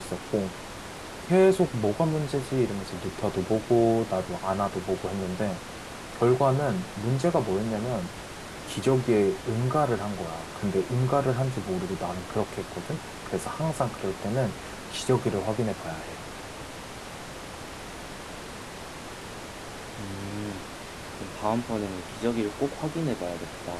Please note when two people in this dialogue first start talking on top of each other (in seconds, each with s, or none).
none